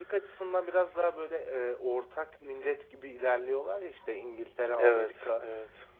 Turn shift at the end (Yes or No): No